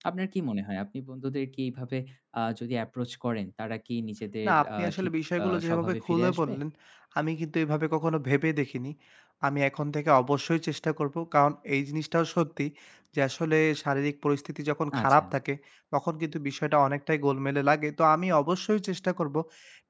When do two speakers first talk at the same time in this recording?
4.4 s

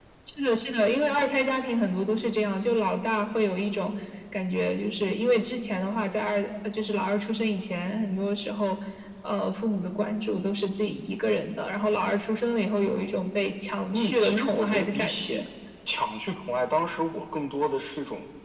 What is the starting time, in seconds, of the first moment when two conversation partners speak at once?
13.9 s

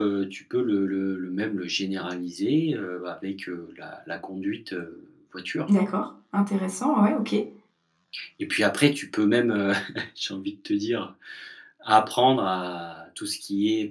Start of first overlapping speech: none

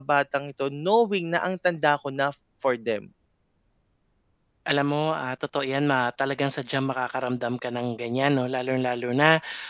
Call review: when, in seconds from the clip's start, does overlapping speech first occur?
none

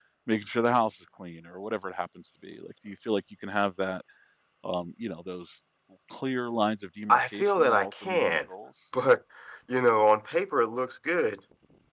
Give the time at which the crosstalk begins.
7.1 s

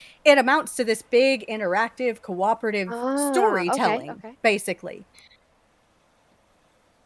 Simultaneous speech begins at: 2.9 s

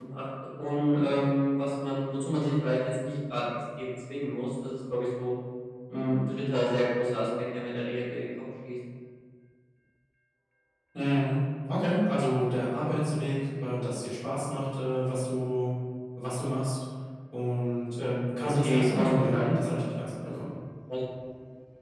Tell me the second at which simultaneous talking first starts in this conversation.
18.4 s

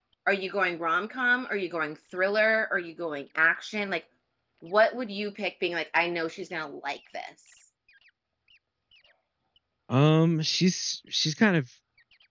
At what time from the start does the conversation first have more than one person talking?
none

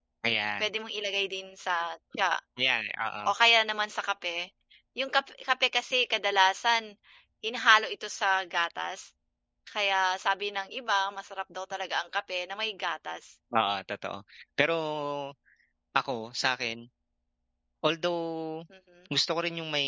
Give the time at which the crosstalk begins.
none

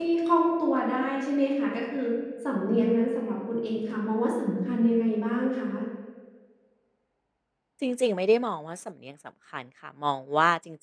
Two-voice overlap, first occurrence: none

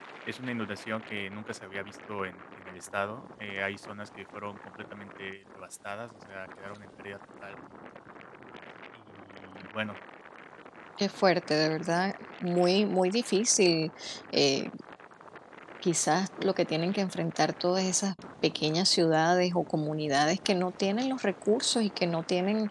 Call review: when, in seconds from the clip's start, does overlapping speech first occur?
none

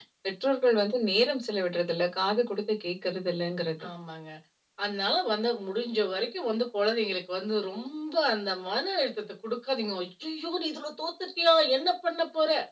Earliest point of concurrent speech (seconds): none

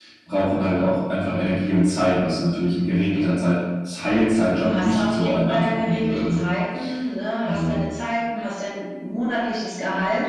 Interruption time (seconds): 4.6 s

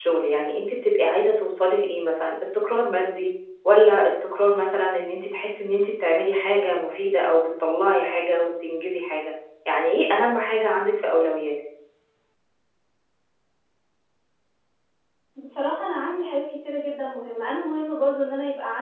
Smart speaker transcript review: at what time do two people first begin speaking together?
none

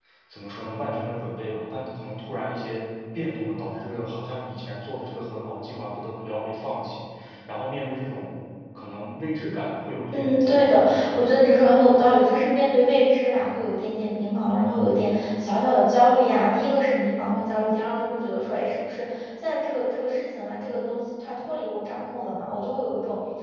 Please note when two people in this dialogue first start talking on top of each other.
10.1 s

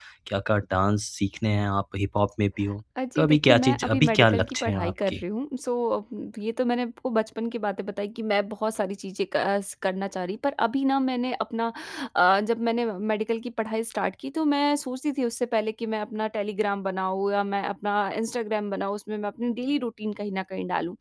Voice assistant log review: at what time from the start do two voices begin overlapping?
3.0 s

